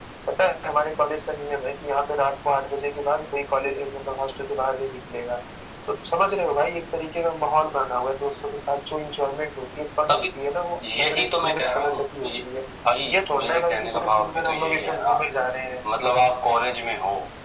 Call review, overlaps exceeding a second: present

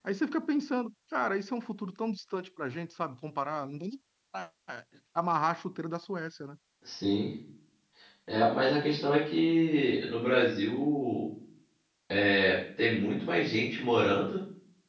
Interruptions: none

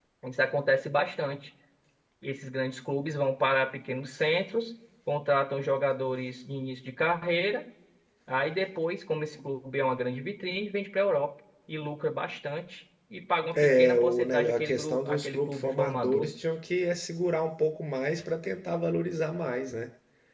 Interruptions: present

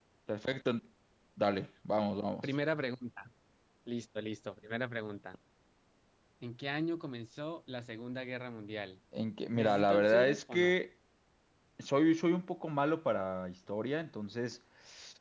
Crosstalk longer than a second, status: present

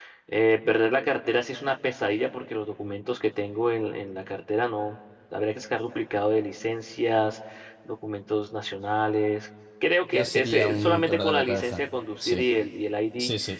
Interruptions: present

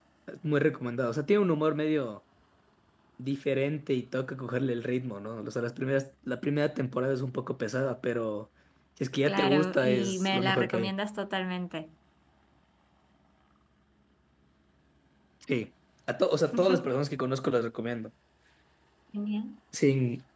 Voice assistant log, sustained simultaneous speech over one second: present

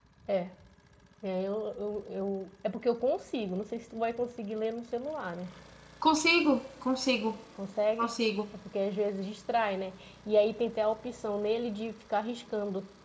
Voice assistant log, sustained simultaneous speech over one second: none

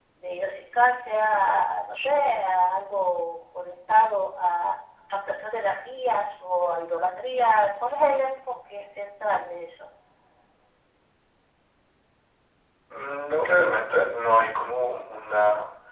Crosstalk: none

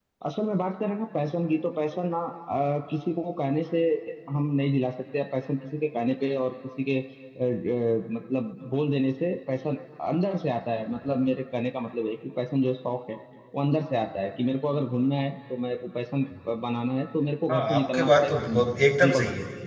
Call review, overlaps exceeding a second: present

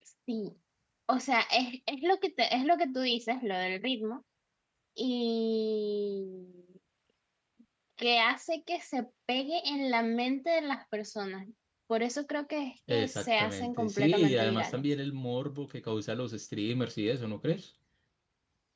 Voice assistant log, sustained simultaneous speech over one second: present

